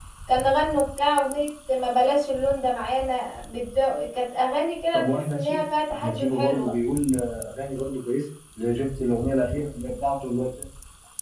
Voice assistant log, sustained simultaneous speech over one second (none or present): present